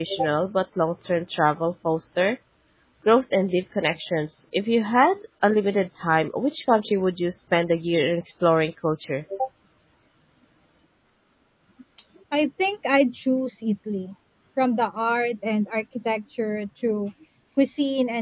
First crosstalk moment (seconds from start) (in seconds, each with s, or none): none